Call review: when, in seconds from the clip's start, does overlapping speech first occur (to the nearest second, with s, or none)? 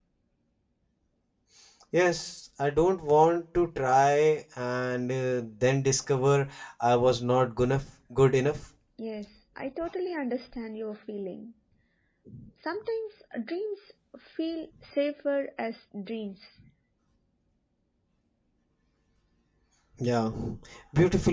none